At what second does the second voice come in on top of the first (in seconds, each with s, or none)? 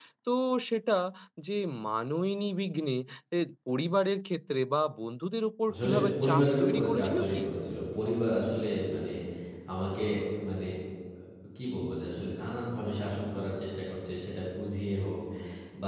5.7 s